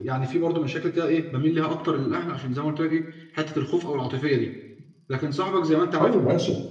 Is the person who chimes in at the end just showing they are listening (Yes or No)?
Yes